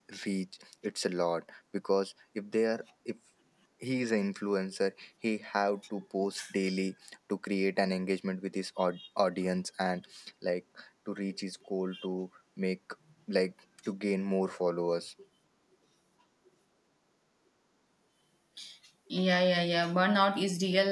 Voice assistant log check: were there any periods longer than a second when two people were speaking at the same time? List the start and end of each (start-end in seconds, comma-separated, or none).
none